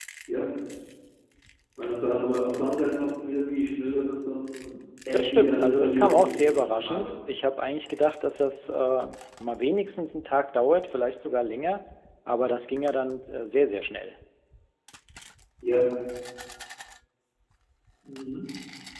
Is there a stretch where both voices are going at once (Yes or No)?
Yes